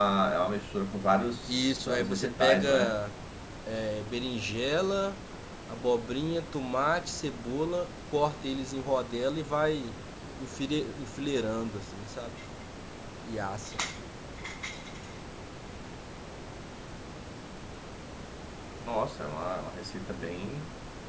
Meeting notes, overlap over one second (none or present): present